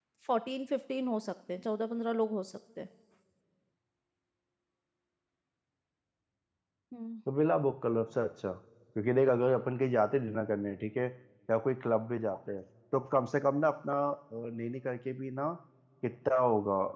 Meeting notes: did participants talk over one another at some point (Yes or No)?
No